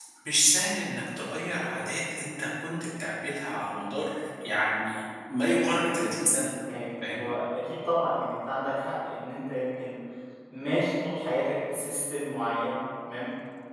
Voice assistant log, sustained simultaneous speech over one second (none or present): none